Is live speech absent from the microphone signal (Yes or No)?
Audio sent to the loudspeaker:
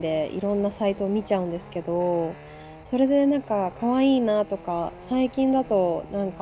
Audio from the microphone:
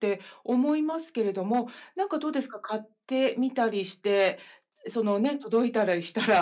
No